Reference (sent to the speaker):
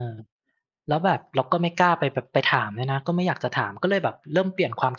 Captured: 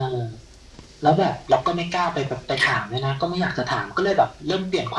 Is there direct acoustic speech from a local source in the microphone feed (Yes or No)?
No